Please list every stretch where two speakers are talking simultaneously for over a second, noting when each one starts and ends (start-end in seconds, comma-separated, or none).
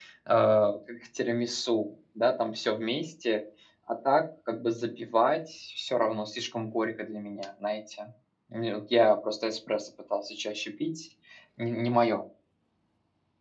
none